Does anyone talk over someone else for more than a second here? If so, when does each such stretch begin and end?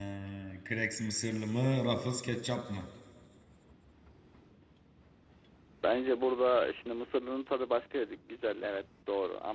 none

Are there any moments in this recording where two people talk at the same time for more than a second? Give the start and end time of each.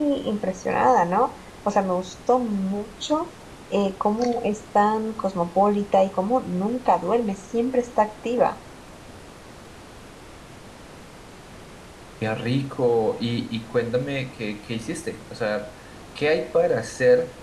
none

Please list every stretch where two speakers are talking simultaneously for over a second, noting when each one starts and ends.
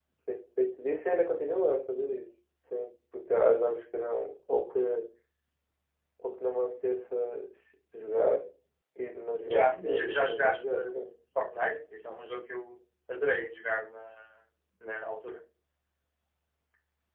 9.4-11.1

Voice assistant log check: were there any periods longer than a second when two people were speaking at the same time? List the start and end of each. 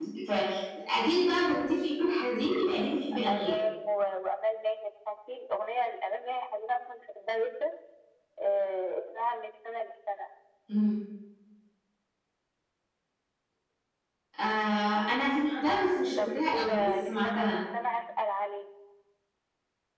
16.2-17.6

